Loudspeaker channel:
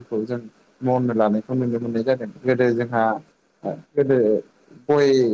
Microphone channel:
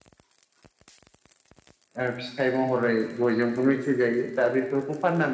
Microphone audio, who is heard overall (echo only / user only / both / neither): user only